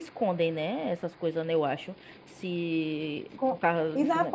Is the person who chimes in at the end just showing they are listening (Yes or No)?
No